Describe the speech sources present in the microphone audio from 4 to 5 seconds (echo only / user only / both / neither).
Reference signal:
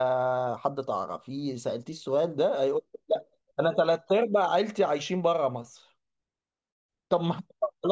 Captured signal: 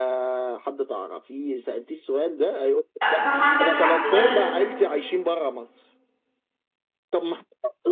both